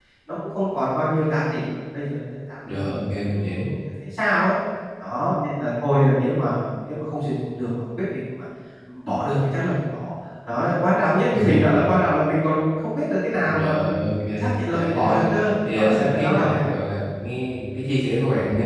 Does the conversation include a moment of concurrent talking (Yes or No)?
Yes